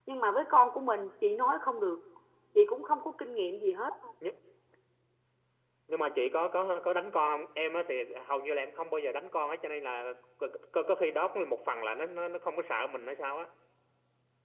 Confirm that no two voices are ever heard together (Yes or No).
Yes